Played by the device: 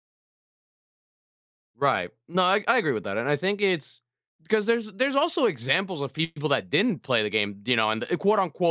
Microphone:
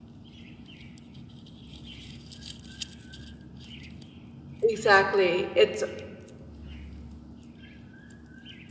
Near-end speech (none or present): present